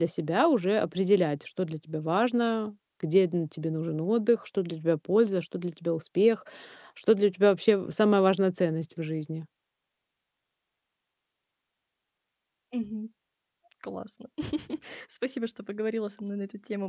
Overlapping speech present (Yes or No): No